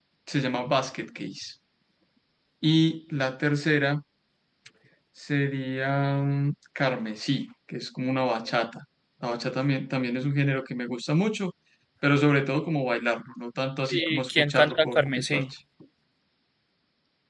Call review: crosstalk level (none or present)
present